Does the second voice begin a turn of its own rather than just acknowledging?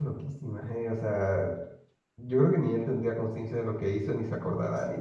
Yes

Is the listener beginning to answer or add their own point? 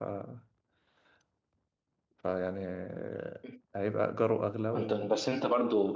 Yes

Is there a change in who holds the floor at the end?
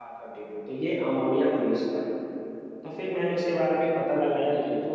No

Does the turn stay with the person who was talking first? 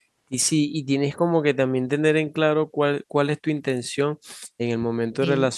Yes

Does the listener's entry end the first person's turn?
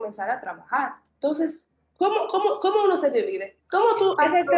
Yes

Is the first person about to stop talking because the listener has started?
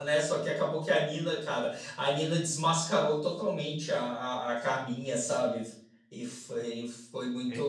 Yes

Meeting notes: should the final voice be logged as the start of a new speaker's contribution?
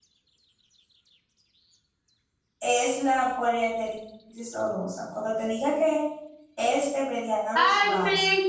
Yes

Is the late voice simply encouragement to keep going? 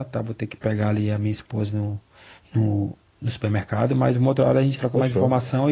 Yes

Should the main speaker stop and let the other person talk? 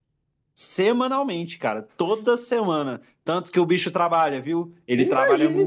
Yes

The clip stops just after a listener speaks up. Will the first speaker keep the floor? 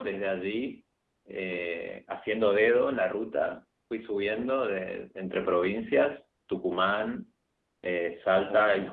Yes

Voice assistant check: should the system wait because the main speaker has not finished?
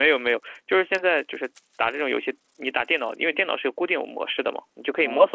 Yes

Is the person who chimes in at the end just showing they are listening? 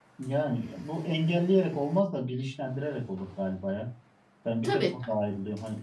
Yes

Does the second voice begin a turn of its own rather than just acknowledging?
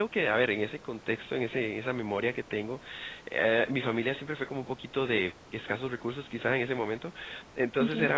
No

